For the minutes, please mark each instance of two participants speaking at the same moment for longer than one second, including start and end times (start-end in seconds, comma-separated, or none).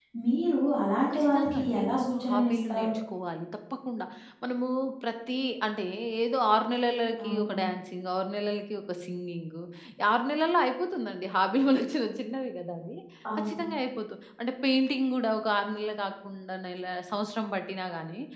1.1-2.9